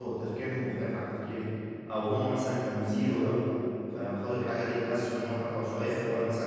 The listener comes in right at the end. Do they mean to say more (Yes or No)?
No